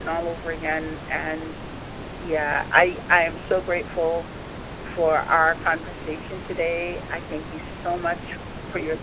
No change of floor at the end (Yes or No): Yes